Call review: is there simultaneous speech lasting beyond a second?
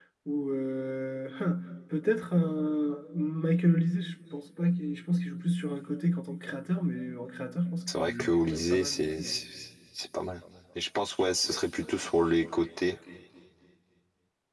Yes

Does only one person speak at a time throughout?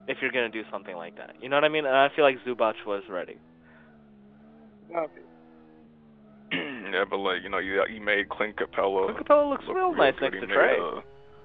No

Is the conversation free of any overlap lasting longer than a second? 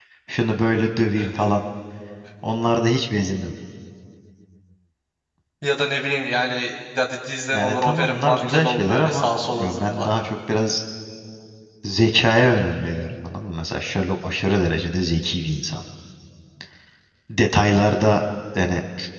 No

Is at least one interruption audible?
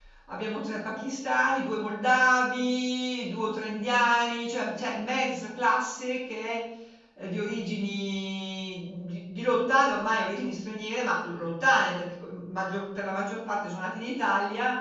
No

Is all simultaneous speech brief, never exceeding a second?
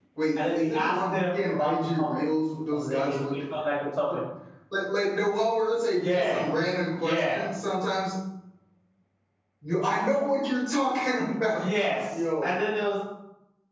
No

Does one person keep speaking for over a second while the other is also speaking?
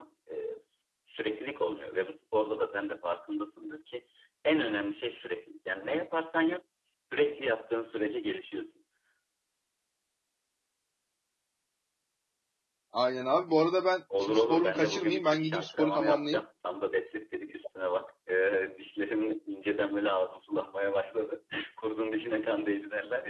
Yes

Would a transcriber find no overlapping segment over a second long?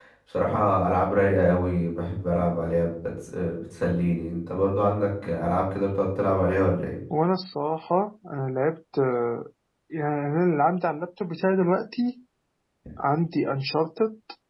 Yes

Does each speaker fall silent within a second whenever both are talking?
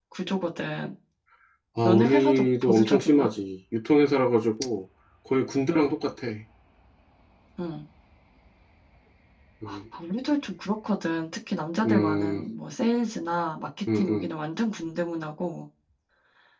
No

